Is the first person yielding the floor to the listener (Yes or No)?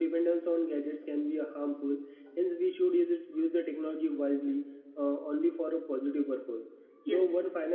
No